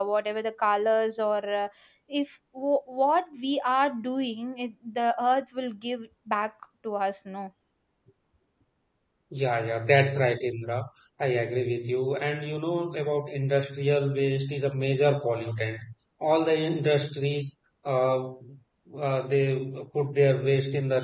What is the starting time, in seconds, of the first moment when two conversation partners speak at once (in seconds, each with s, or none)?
none